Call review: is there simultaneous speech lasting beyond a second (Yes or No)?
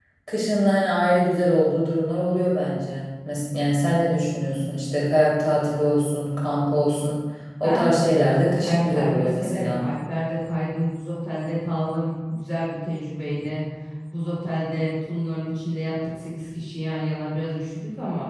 Yes